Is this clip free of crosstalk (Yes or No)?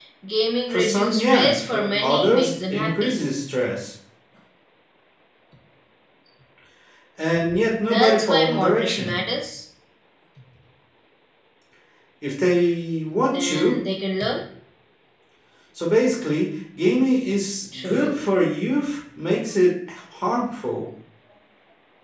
No